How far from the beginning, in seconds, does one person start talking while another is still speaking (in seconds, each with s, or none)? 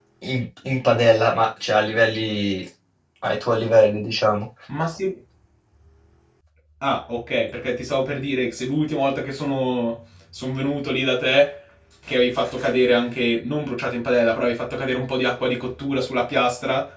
none